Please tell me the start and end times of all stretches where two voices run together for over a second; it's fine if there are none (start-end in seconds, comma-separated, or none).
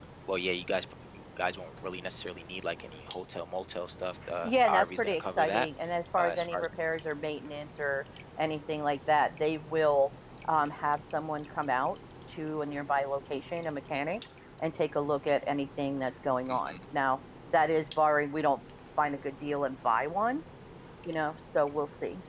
4.4-5.7